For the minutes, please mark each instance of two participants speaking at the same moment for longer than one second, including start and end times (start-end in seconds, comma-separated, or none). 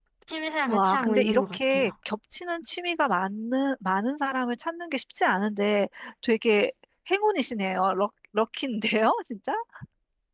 0.7-1.9